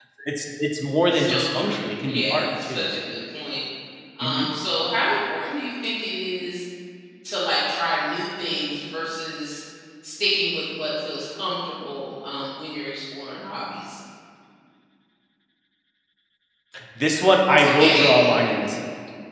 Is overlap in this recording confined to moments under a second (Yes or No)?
No